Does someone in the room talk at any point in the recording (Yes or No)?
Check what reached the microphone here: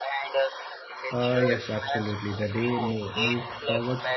Yes